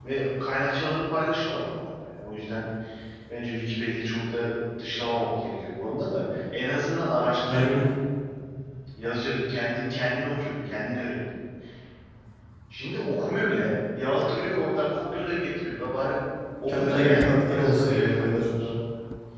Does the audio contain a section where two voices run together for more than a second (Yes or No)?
Yes